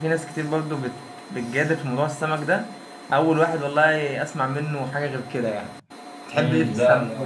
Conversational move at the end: taking over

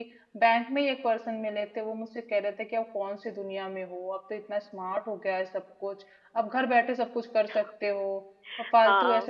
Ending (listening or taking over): taking over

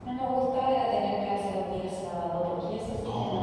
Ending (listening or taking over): taking over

